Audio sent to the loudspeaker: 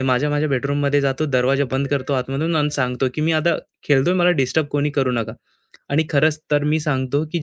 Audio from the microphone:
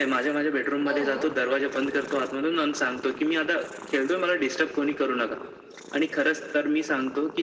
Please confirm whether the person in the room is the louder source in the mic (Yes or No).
No